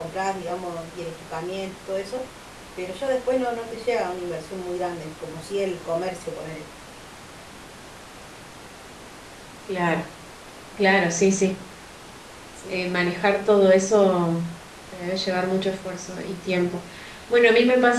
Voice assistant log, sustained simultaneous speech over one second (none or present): none